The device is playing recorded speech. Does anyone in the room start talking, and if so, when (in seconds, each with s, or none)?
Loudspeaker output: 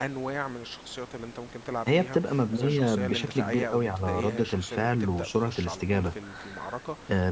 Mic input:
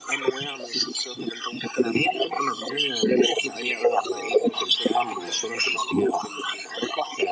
none